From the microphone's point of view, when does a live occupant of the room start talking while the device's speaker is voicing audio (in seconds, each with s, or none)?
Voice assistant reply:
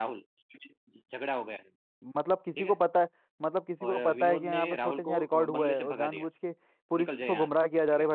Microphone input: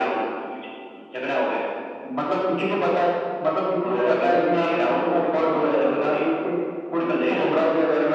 none